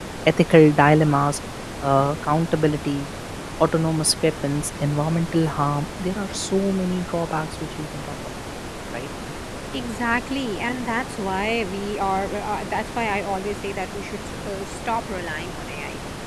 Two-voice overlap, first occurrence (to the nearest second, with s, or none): none